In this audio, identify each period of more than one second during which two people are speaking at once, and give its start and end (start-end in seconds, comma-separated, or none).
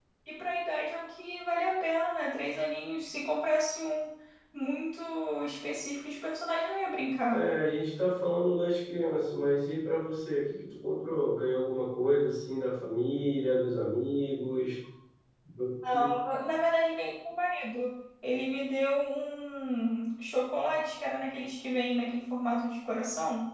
none